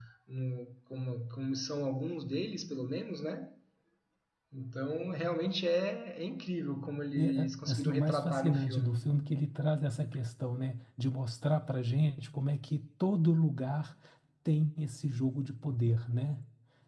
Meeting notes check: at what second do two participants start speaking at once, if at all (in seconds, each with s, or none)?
7.2 s